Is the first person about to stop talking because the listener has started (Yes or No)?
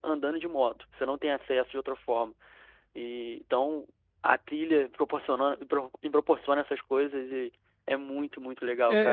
Yes